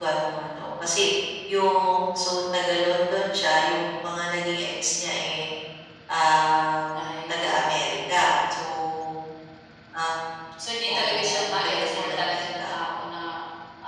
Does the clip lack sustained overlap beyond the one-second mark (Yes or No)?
No